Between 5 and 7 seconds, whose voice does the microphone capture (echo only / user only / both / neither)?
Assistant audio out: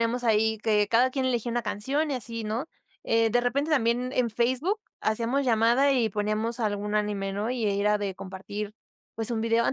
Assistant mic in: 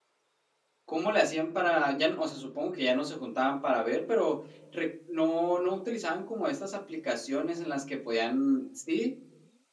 user only